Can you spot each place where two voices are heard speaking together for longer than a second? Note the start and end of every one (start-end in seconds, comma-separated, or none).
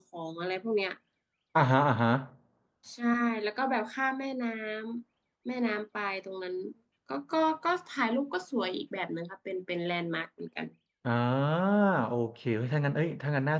none